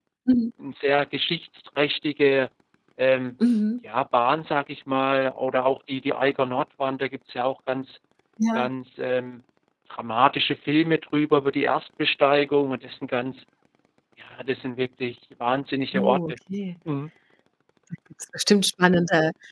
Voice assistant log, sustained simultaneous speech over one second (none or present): none